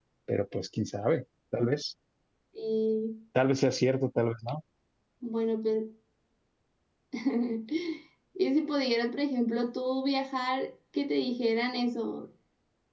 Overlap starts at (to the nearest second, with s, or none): none